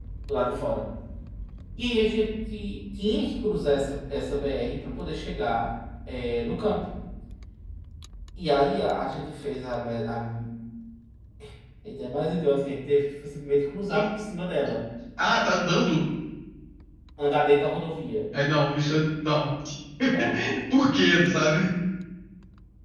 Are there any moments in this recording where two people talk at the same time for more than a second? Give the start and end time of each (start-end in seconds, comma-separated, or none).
none